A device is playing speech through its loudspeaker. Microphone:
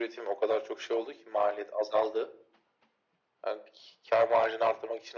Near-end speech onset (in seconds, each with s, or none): none